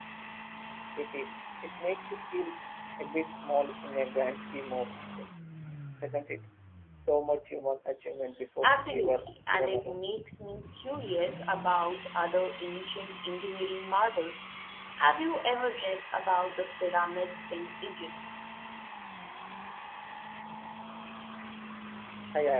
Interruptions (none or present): present